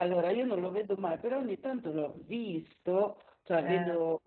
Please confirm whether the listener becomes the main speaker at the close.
No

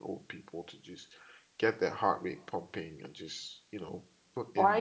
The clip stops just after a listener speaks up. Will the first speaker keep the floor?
No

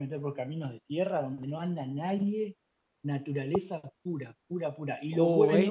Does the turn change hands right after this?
Yes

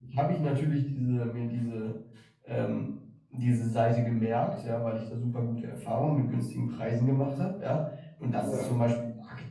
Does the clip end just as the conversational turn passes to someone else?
No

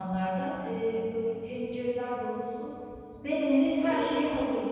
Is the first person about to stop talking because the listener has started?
No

